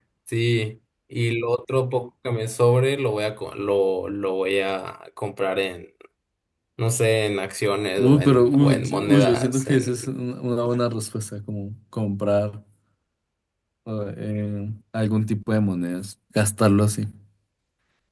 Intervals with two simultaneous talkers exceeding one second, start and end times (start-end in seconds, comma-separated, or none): 8.0-10.1